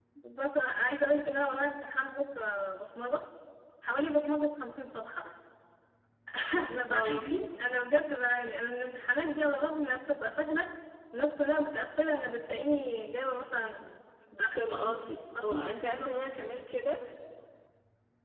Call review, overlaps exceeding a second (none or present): none